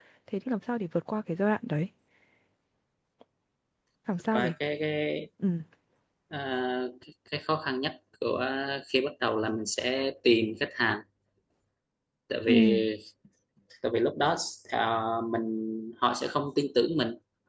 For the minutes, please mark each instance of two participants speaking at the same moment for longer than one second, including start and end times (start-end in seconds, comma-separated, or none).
none